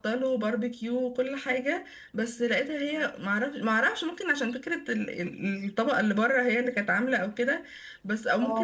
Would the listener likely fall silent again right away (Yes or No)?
Yes